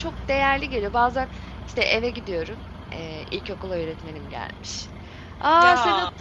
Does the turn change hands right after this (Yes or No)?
No